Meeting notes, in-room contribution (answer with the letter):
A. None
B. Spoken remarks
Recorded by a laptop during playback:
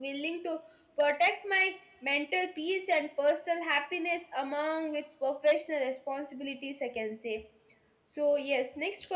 B